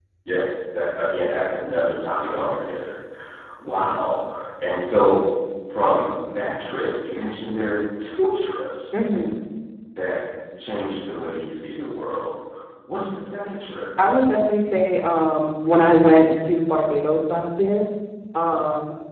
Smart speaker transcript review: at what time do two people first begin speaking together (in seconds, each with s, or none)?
none